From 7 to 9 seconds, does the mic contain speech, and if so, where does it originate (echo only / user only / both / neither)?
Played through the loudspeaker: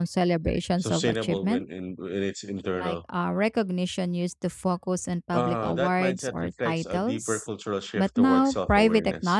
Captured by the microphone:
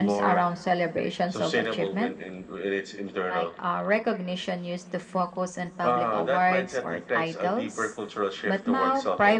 echo only